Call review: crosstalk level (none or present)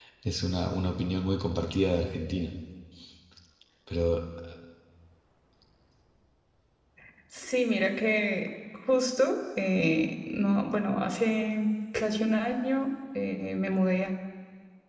none